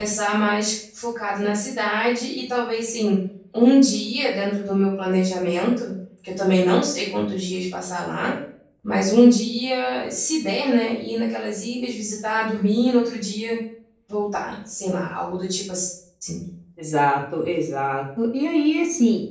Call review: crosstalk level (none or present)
none